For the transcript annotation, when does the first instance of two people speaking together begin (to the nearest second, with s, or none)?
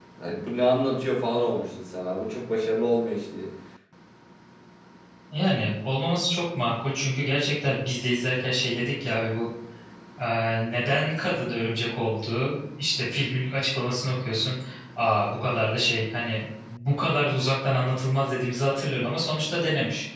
none